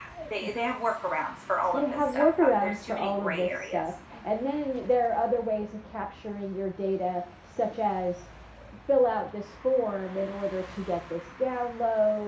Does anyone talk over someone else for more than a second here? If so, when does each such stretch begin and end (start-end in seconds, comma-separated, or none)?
1.7-3.8